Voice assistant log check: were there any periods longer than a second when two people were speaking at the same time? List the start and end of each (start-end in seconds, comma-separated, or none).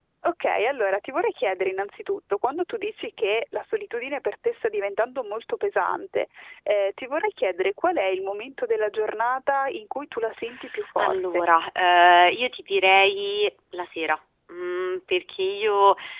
none